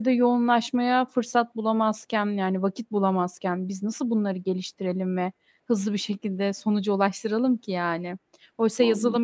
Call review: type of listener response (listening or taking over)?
listening